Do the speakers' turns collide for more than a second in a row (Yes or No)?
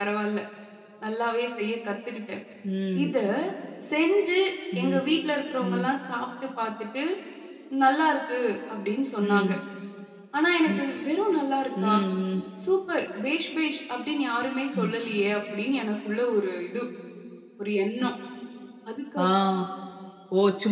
No